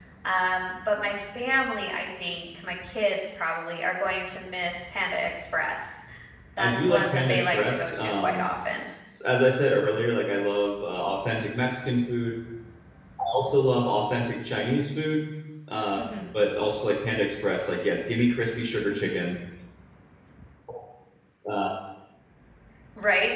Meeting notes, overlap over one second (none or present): present